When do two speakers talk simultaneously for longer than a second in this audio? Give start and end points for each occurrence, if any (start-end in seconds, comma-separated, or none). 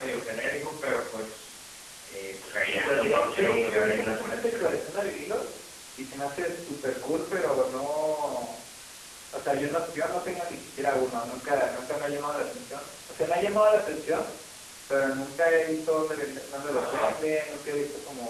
2.6-4.6